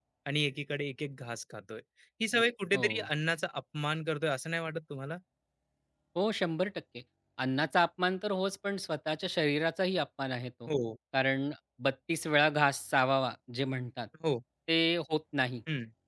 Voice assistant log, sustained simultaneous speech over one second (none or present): none